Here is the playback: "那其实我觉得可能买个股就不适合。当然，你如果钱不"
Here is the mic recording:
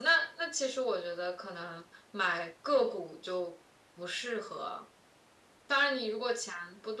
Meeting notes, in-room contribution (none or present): none